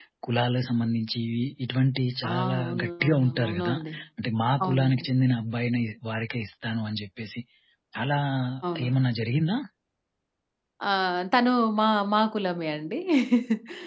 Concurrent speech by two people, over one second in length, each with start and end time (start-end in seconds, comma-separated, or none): 2.3-3.7